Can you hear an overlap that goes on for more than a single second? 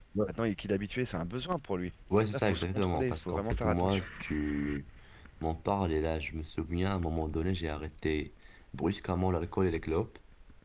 Yes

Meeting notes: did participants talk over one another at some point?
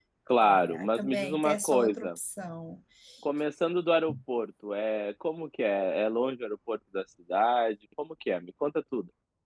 Yes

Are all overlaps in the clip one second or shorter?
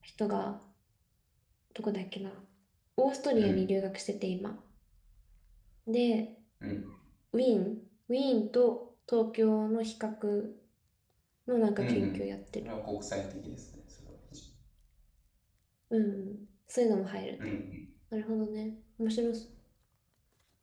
Yes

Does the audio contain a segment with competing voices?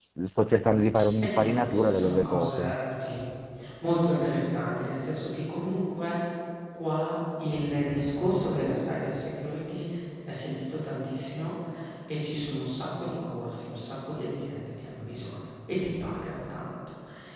Yes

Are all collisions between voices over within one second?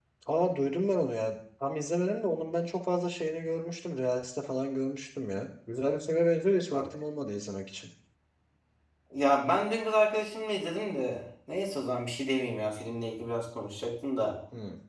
Yes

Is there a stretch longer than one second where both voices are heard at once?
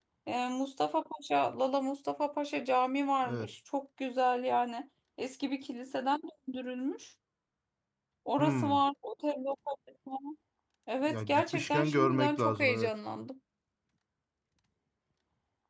Yes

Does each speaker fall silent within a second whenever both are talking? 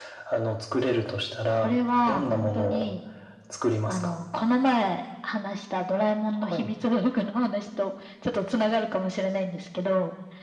No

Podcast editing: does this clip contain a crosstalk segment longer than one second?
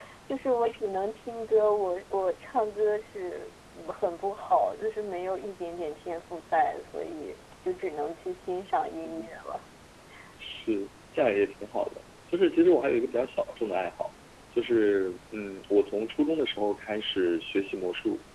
No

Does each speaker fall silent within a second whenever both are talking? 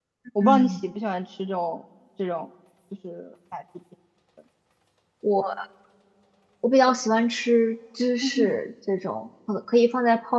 Yes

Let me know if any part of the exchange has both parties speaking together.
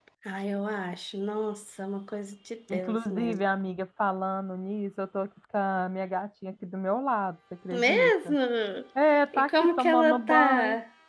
Yes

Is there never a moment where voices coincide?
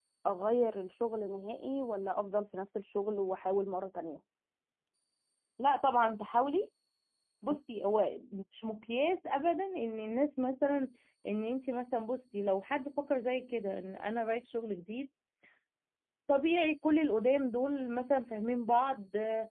Yes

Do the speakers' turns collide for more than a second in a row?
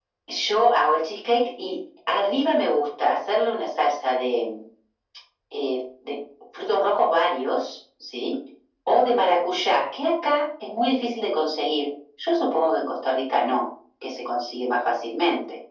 No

